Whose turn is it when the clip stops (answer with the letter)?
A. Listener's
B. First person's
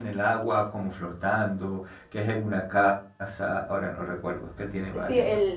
A